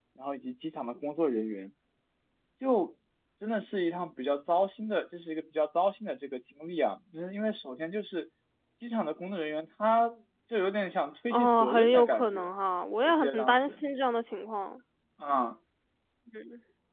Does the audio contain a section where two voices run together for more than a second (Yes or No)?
Yes